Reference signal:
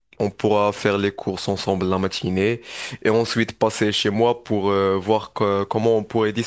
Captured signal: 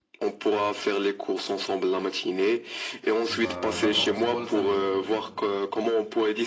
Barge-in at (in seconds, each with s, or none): 3.3 s